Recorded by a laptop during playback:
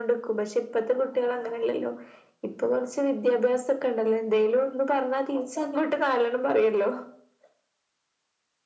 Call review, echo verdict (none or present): present